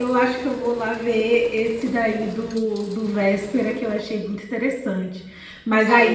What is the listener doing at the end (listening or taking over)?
listening